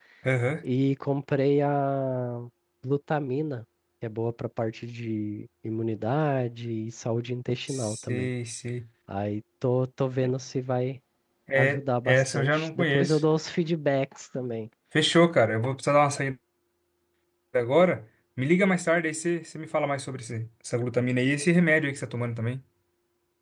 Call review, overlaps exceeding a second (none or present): present